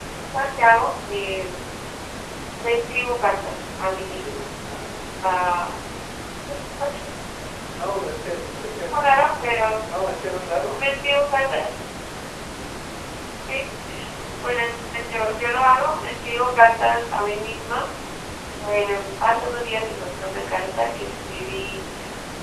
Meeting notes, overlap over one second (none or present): none